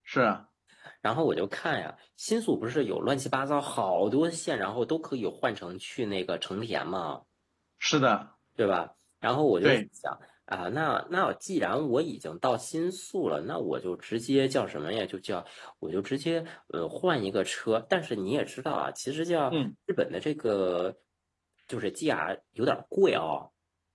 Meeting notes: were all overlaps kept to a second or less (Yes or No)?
Yes